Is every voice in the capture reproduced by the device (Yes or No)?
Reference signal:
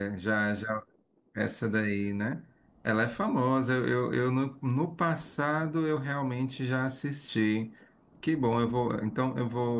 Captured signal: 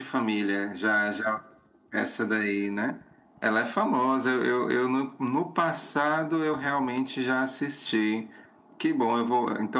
Yes